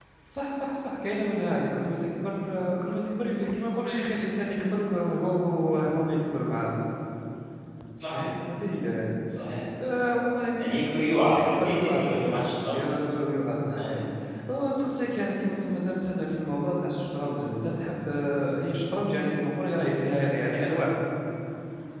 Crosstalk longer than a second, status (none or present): present